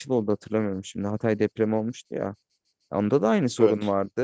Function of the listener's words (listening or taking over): listening